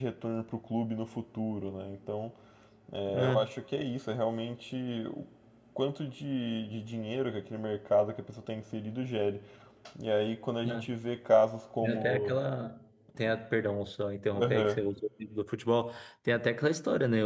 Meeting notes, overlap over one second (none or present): none